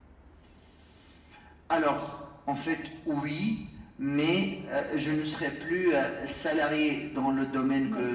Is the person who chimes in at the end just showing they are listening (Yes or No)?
Yes